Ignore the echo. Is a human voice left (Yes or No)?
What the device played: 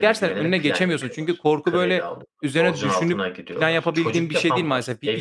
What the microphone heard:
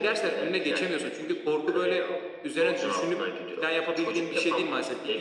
No